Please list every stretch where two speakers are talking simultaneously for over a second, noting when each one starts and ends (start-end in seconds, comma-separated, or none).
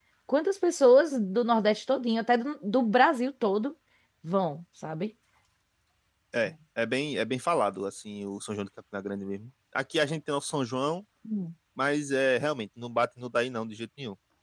none